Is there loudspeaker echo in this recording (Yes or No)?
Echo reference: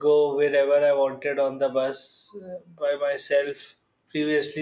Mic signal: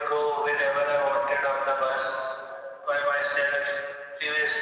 Yes